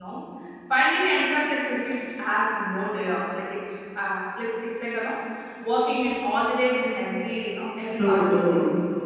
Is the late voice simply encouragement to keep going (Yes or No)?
No